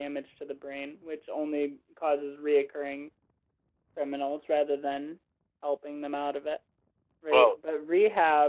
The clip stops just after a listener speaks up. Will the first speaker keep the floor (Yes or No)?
Yes